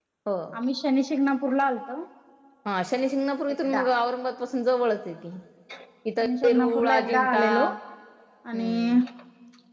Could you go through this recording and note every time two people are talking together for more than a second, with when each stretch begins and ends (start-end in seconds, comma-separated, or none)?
6.2-7.7